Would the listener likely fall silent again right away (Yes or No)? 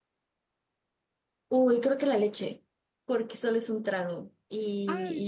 Yes